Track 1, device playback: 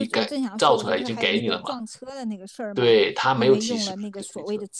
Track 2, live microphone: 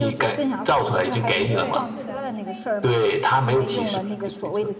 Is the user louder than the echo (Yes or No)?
No